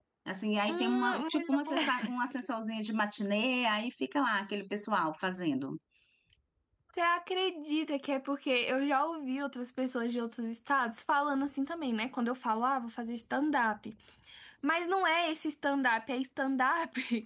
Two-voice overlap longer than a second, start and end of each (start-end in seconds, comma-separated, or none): 0.7-2.1